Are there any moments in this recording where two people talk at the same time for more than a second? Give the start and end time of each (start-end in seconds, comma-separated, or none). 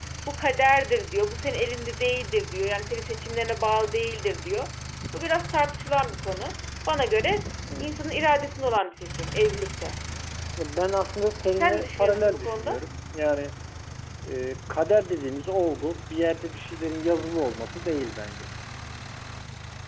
11.6-12.8